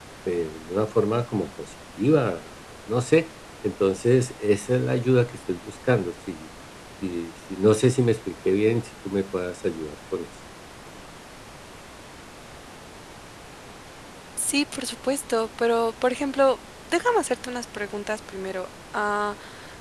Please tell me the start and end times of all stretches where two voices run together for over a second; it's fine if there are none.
none

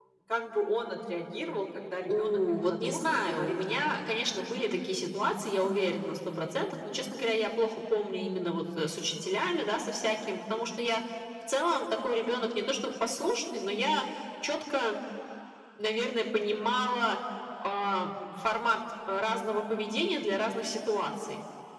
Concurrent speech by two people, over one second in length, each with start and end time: 2.1-3.9

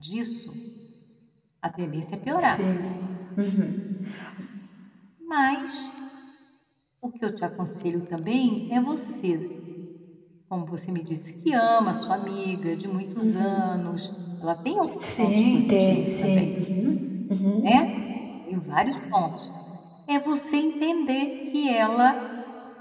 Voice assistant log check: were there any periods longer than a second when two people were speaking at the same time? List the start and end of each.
15.2-16.6

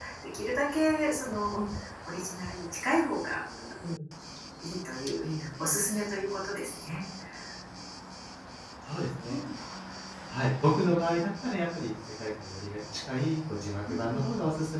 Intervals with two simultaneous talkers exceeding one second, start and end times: none

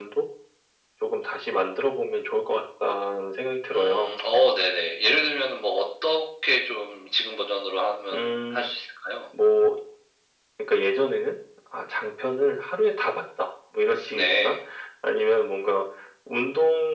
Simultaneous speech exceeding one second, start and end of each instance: none

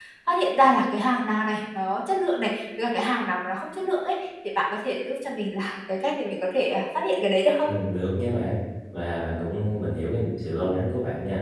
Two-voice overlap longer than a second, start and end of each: none

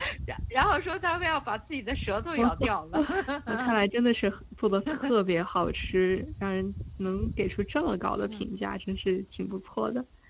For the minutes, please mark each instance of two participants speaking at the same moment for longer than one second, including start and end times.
none

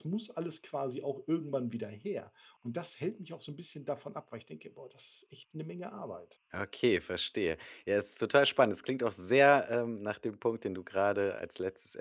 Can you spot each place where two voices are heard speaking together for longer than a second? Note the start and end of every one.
none

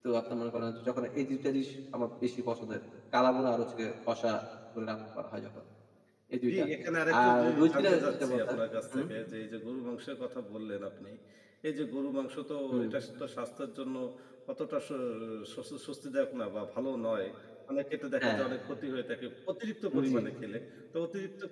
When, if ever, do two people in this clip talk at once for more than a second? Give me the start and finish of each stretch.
7.2-8.5

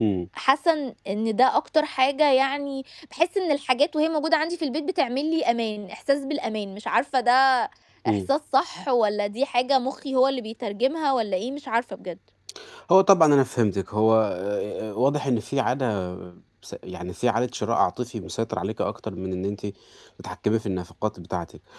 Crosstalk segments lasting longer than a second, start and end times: none

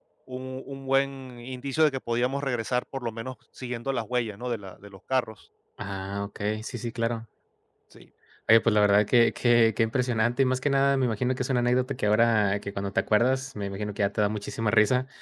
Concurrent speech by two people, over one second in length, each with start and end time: none

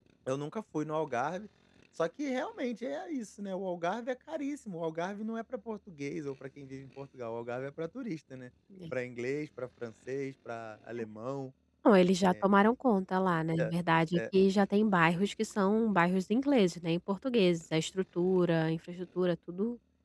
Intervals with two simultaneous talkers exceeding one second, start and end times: none

